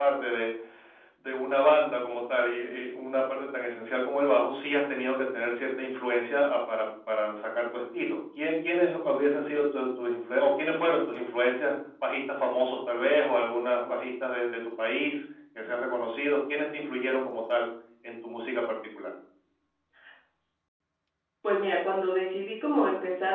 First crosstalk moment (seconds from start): none

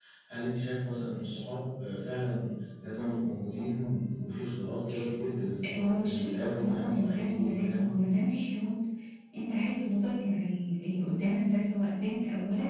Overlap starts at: 5.7 s

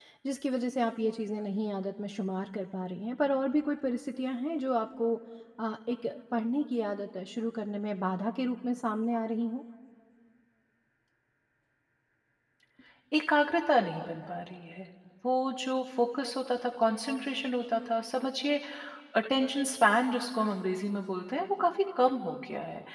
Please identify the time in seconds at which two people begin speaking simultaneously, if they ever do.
none

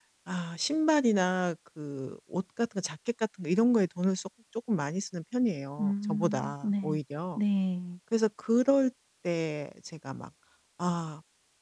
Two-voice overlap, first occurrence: 5.8 s

